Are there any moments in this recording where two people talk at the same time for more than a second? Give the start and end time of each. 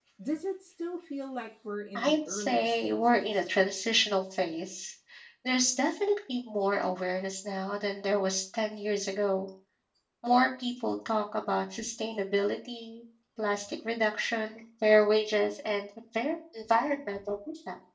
1.9-3.5

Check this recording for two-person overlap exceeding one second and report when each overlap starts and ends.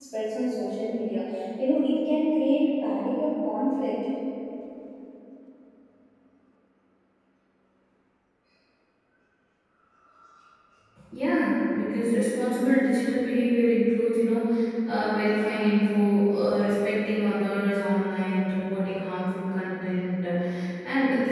none

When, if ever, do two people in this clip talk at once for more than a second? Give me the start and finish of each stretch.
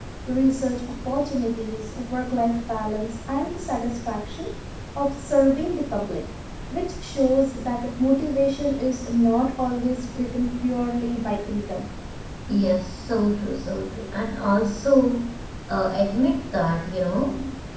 none

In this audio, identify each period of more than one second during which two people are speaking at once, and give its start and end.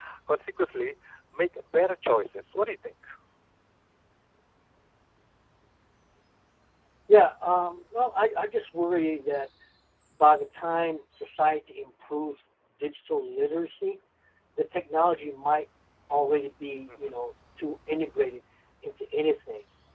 none

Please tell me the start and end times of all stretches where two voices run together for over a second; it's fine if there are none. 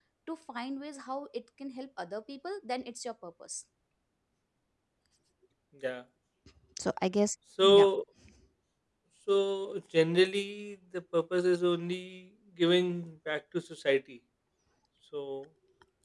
none

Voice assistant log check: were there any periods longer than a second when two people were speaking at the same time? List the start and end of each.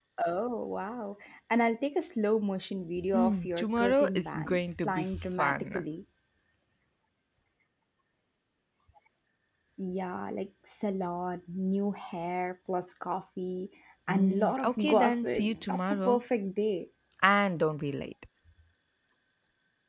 3.1-5.8, 14.1-16.2

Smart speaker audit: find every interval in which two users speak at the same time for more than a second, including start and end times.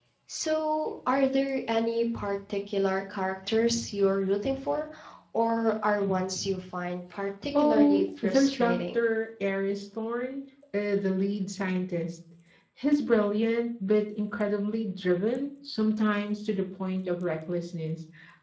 7.6-9.0

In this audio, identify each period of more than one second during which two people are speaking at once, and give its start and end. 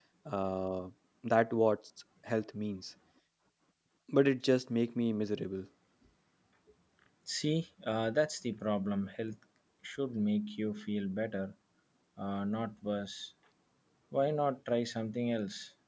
none

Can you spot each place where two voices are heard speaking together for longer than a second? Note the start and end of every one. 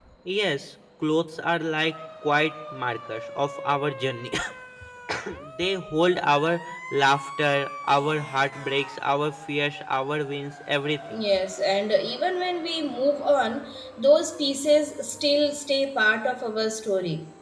none

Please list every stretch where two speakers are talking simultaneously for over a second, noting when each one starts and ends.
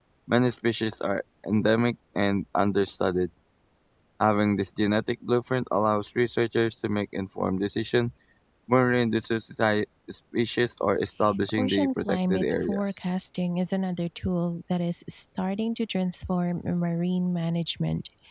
11.6-12.8

